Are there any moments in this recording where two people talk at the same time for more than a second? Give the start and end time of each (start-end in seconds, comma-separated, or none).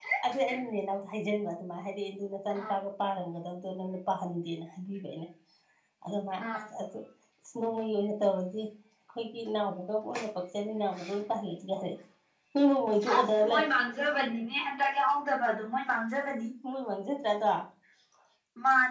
none